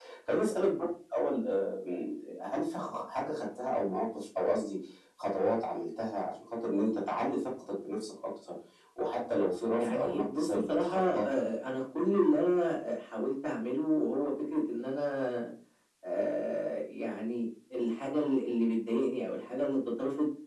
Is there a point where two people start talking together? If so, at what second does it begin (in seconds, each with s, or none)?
9.8 s